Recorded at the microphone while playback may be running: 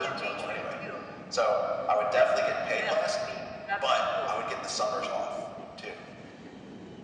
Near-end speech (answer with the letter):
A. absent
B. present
A